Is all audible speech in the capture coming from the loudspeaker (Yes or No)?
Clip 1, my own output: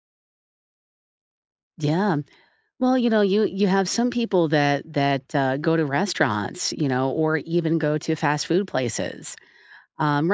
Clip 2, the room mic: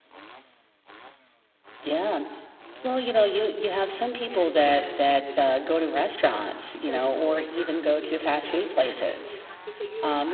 No